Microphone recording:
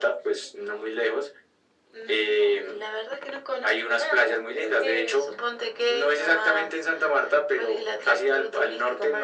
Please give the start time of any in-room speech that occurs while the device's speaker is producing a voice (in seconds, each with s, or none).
none